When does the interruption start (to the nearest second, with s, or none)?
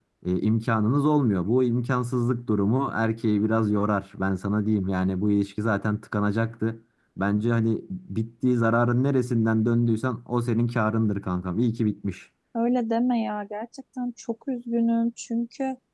none